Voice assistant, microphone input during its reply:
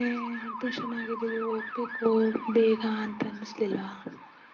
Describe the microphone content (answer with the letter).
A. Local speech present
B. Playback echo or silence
B